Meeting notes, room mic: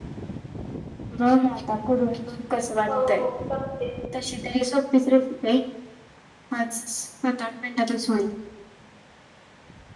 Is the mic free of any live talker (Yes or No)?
No